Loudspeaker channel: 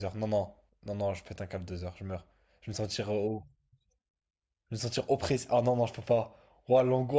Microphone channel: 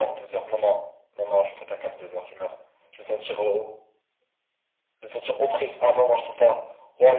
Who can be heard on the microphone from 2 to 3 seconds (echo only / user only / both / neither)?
echo only